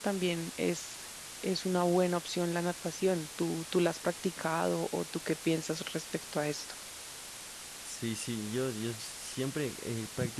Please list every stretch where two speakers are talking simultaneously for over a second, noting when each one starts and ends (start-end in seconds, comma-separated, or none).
none